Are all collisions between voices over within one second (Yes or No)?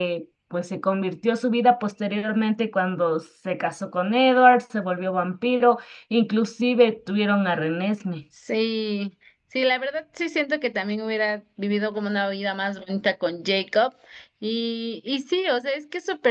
Yes